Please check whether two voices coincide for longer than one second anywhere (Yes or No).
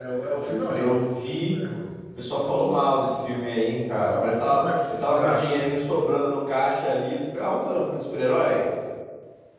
Yes